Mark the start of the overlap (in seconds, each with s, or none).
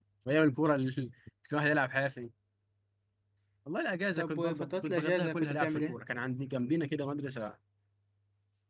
4.2 s